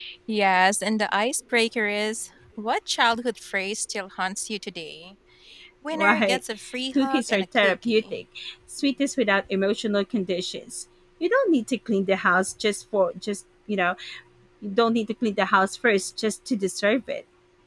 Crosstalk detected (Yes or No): Yes